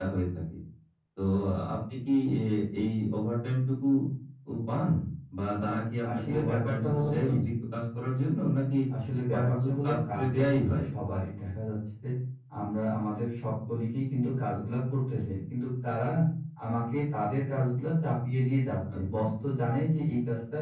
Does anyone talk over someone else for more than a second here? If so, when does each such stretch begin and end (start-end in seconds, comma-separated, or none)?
6.1-7.3, 9.3-10.7